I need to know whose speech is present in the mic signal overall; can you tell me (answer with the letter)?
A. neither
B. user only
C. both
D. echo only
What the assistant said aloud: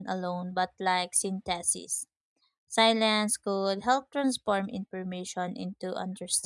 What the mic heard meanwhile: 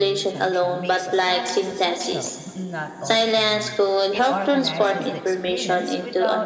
C